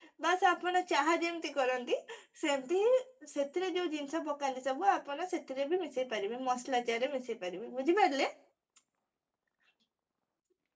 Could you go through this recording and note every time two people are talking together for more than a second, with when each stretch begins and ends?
none

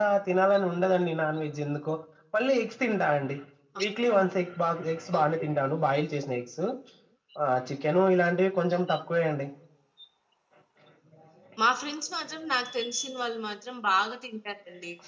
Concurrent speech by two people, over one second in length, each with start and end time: none

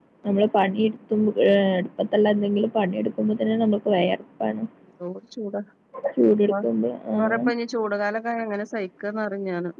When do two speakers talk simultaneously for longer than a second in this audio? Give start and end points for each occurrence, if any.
none

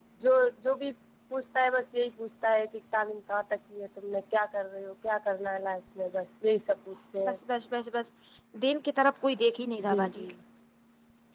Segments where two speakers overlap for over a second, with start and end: none

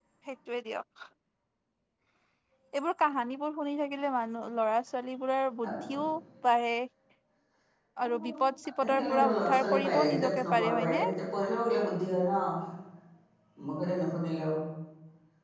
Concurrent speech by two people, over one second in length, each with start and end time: 8.8-11.0

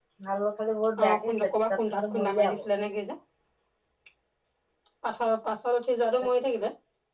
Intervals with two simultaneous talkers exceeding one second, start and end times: 1.0-2.6

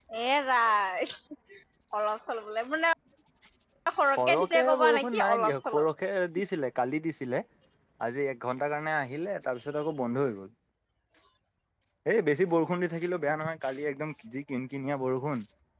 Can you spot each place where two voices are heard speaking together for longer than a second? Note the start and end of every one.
4.1-5.8

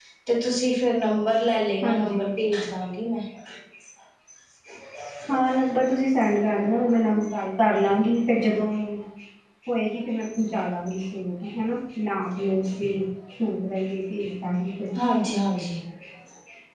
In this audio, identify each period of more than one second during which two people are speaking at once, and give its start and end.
none

